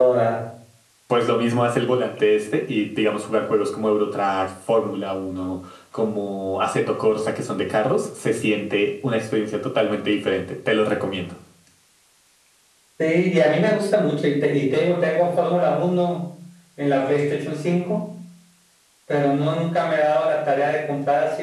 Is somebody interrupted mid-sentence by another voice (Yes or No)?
No